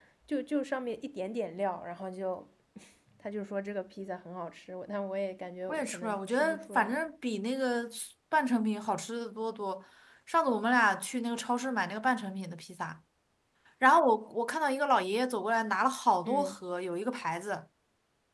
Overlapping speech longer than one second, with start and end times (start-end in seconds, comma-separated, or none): 5.7-7.0